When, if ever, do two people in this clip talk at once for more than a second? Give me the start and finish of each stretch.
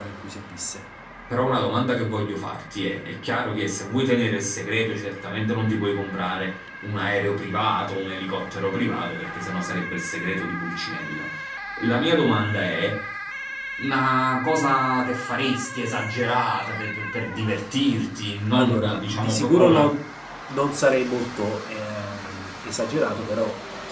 18.5-19.9

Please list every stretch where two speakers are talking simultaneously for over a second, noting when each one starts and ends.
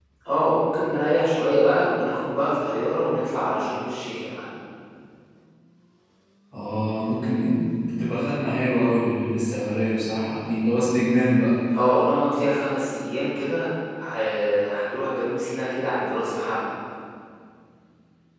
none

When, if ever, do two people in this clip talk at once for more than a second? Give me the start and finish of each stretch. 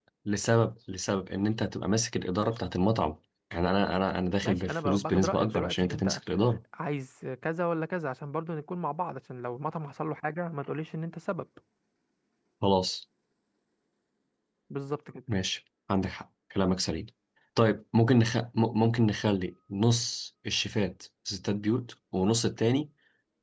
4.4-6.2

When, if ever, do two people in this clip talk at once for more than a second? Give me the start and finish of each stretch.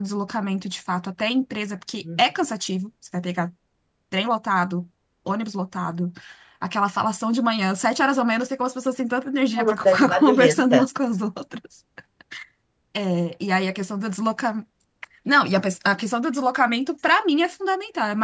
9.6-10.8

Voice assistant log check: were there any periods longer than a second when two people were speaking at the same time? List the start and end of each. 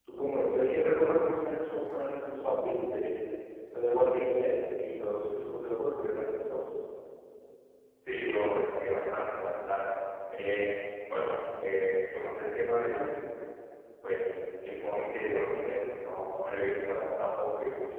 none

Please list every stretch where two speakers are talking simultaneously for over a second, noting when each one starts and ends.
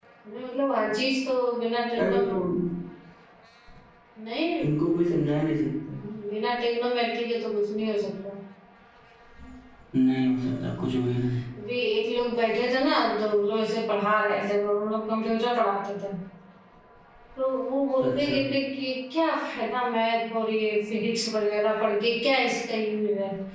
none

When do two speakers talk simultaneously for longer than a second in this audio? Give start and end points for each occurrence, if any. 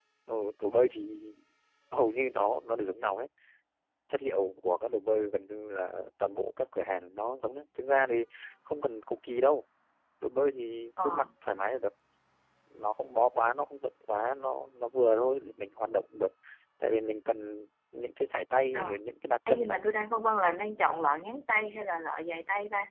none

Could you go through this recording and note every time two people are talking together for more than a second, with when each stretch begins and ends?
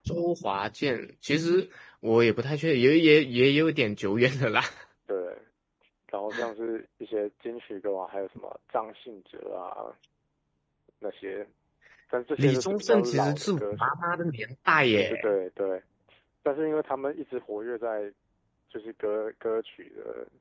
12.4-14.0

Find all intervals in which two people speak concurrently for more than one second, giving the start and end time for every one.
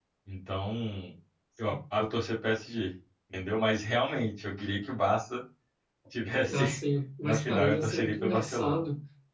7.2-8.8

